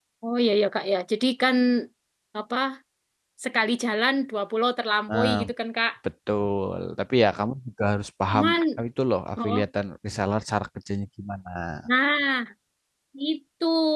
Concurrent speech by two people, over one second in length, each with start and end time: none

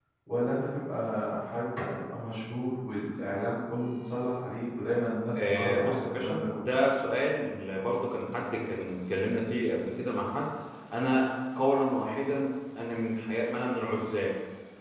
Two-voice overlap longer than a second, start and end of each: 5.4-6.7

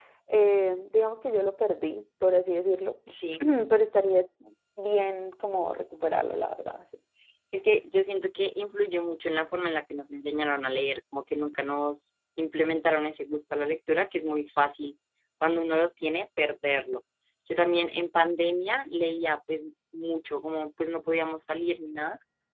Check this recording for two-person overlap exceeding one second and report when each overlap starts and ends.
none

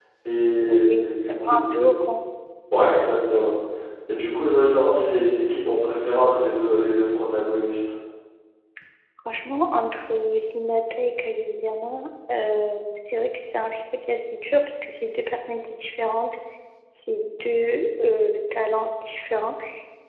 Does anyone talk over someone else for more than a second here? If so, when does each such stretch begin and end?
0.7-1.9

